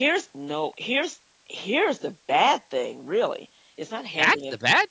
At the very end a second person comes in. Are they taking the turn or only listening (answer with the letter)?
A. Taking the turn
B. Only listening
A